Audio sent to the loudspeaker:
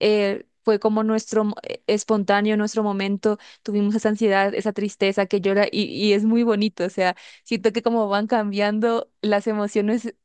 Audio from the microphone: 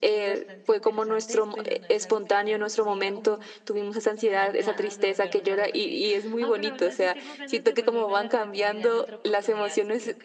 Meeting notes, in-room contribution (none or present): present